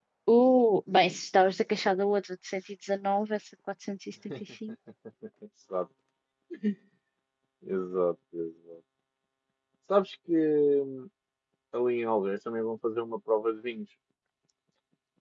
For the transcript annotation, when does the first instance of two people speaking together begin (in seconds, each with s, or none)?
none